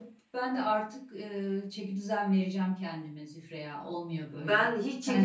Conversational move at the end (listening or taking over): taking over